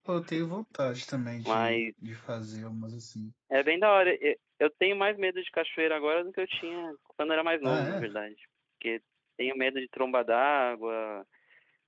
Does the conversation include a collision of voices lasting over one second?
No

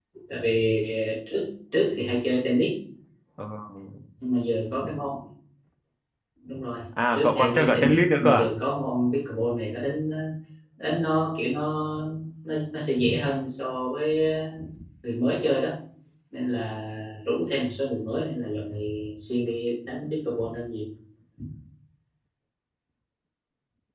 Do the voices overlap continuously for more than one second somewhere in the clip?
Yes, from 7.1 s

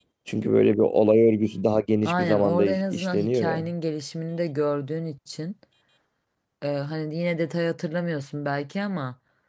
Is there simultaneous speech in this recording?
Yes, from 2.0 s

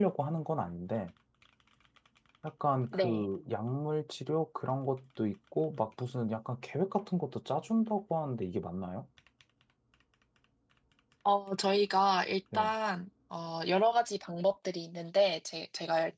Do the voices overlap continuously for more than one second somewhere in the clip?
No

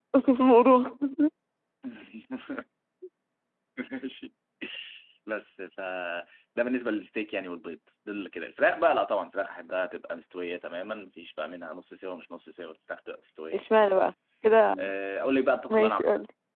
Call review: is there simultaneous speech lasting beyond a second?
No

